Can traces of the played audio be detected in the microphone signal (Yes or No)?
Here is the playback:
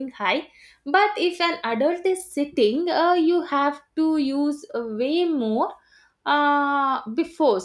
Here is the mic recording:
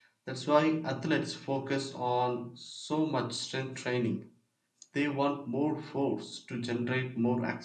No